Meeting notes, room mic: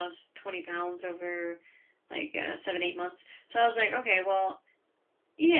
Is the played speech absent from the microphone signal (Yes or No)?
No